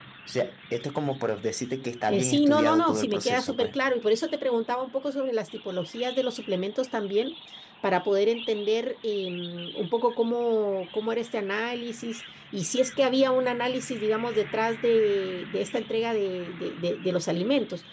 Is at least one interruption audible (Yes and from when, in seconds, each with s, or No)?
Yes, from 2.1 s